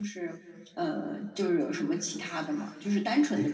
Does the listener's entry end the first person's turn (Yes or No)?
No